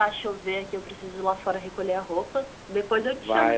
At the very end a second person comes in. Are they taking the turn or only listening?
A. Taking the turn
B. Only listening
A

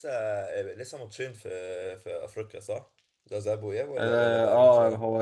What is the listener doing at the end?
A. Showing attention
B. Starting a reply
B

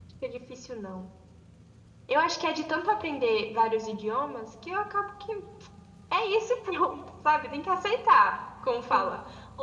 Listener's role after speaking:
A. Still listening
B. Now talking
A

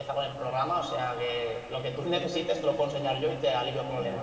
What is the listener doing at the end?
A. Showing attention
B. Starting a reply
B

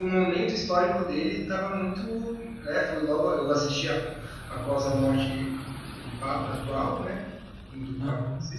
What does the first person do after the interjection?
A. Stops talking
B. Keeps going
B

